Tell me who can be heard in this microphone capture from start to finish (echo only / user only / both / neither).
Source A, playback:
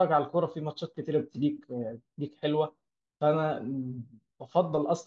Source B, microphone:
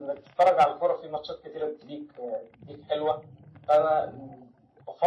echo only